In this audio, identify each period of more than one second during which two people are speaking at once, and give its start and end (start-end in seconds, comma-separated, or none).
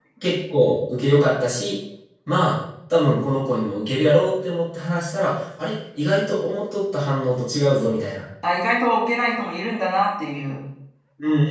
none